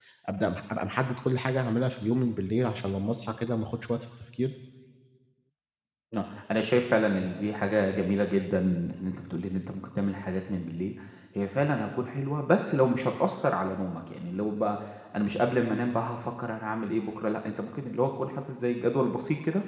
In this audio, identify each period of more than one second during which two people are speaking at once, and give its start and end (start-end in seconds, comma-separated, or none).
none